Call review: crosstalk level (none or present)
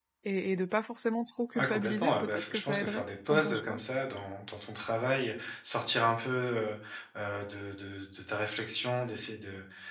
present